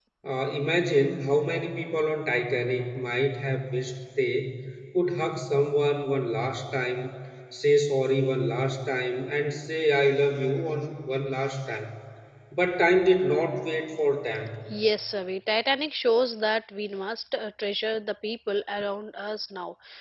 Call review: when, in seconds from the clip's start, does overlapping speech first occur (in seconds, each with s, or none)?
none